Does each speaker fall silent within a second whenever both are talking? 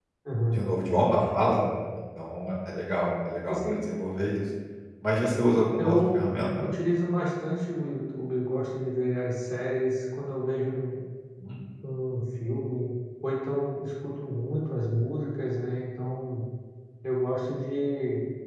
Yes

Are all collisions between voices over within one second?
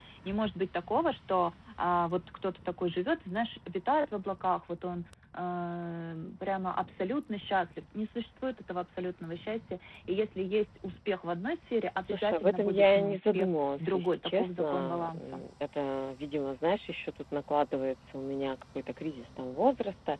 No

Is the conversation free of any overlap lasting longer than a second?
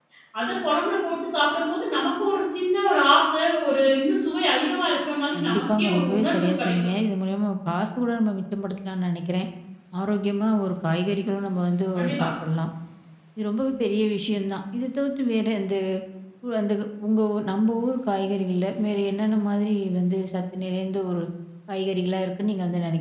No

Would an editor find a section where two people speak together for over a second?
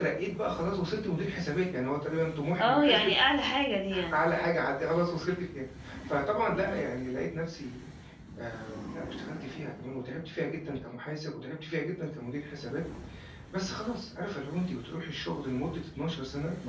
No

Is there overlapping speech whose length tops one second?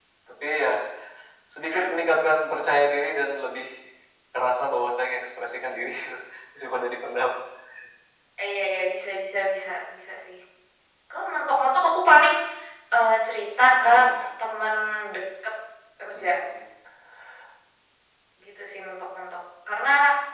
No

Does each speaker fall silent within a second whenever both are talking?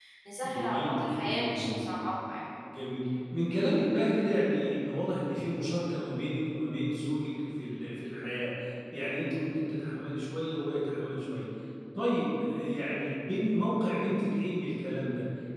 No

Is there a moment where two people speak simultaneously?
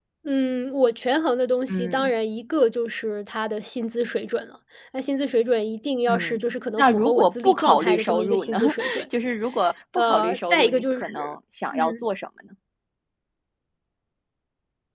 Yes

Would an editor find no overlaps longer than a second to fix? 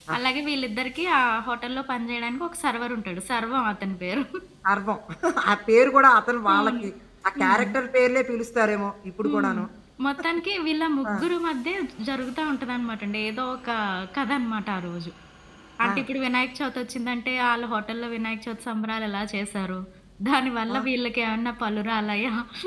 Yes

